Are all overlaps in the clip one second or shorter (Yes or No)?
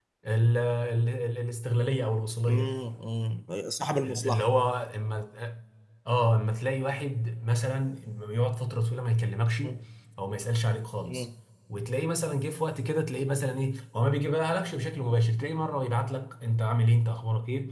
Yes